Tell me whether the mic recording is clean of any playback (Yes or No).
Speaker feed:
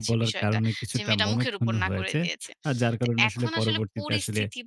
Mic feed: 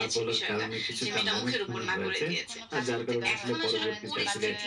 No